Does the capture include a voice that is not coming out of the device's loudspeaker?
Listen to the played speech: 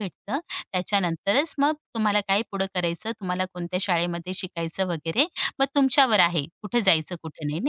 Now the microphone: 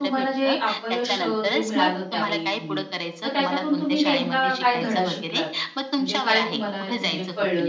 Yes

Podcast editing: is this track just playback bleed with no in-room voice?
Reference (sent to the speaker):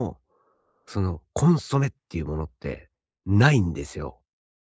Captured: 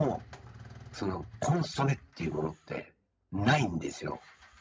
Yes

